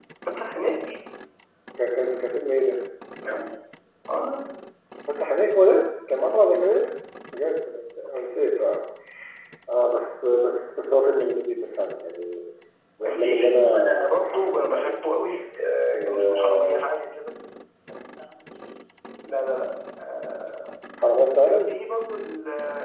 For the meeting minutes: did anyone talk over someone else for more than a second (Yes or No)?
Yes